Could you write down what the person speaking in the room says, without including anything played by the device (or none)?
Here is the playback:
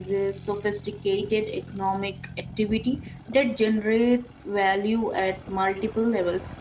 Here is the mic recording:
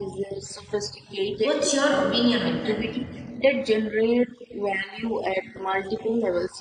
What's your opinion on that?